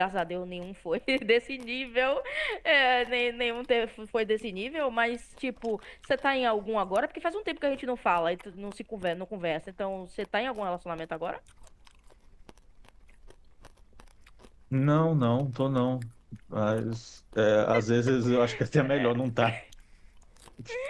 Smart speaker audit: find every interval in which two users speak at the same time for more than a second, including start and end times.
none

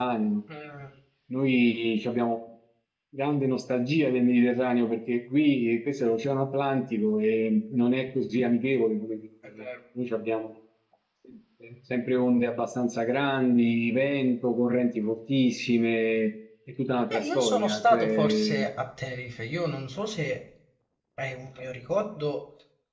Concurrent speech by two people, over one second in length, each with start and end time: 17.1-18.7

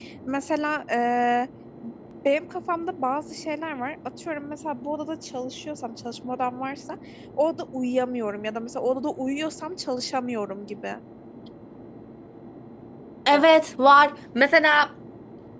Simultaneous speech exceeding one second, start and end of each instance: none

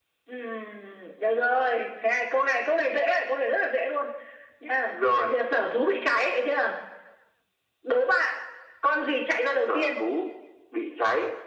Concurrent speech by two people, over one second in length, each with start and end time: none

